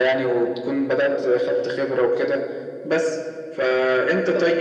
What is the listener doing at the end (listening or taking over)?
listening